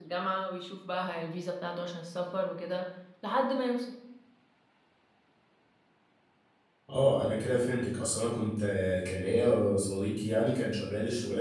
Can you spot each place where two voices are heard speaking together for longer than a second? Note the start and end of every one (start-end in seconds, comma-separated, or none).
none